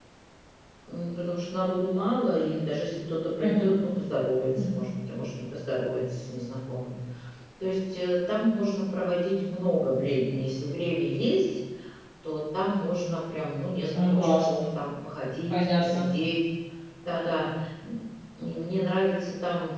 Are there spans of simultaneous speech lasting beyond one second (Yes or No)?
No